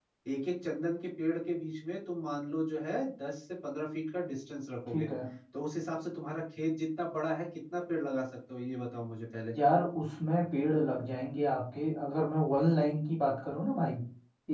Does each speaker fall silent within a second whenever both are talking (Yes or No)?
Yes